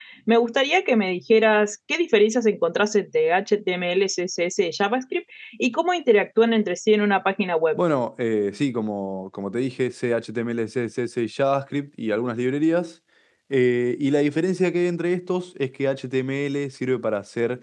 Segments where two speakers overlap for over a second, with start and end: none

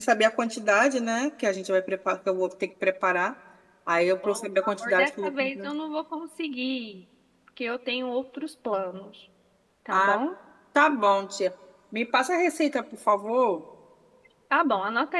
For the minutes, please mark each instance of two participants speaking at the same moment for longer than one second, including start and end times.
4.2-5.7

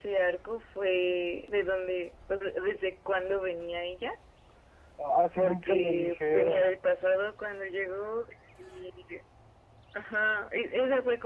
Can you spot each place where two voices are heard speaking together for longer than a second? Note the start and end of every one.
5.3-6.6

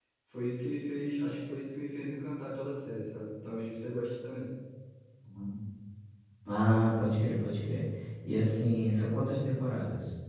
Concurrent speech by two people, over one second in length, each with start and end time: none

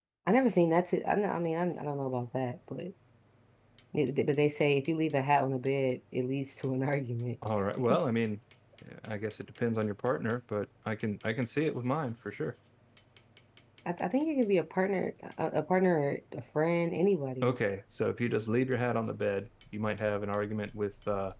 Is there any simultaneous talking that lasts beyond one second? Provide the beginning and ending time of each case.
none

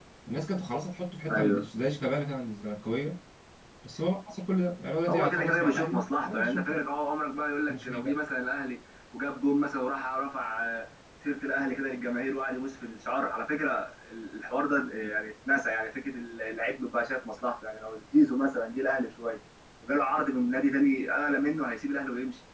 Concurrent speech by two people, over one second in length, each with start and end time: 5.1-6.8

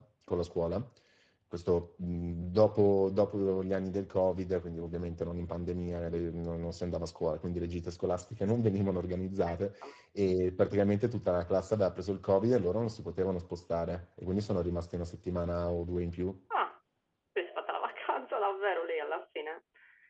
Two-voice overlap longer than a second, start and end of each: none

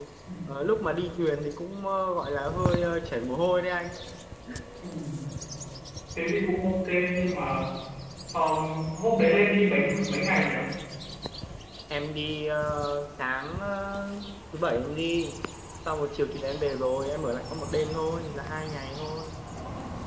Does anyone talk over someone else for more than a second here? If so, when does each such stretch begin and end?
none

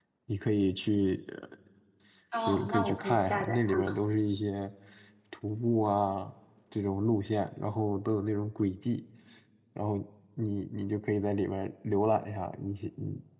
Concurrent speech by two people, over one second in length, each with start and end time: 2.5-4.0

